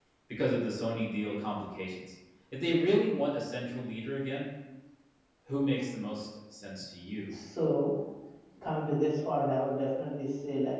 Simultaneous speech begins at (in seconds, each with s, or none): none